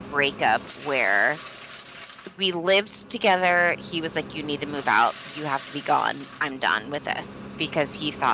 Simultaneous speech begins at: none

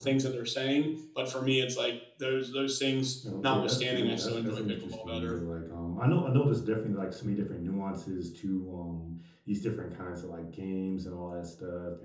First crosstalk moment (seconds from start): 3.2 s

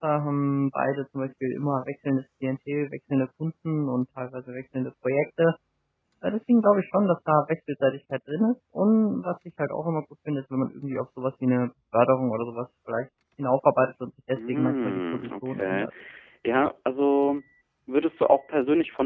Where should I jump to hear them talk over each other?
14.3 s

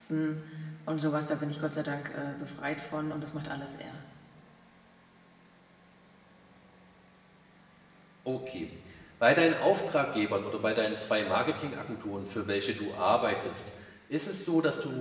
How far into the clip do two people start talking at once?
none

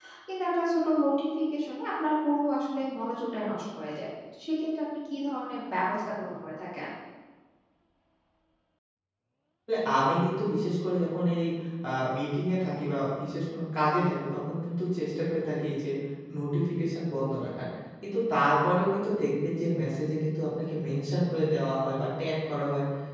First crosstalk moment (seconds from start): none

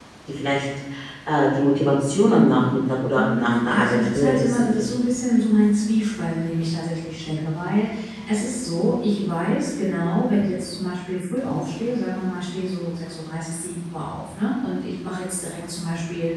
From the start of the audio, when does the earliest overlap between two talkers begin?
3.1 s

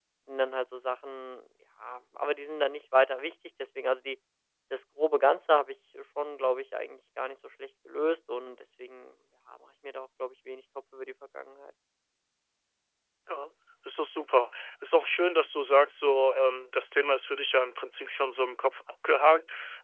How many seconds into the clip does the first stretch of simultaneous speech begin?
none

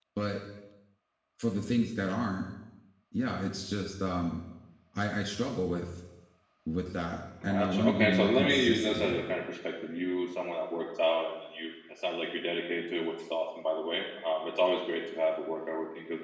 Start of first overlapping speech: 7.4 s

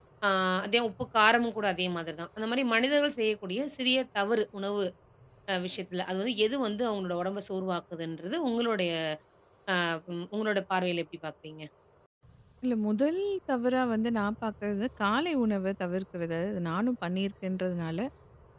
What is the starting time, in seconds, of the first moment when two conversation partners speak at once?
none

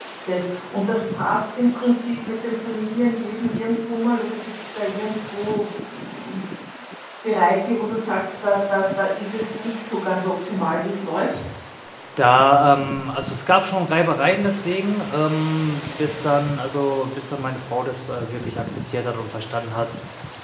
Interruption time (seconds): none

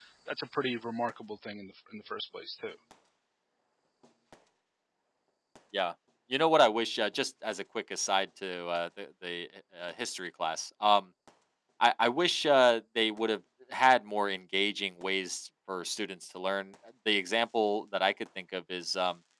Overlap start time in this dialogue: none

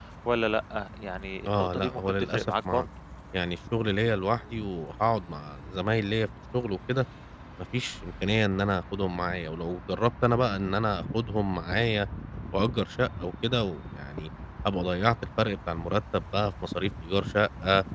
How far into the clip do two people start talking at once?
1.5 s

